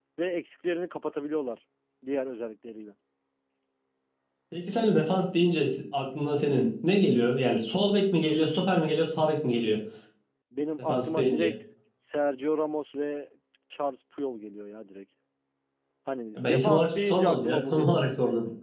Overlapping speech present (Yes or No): Yes